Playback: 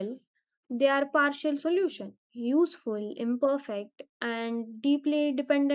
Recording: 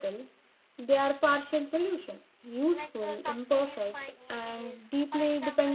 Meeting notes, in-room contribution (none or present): present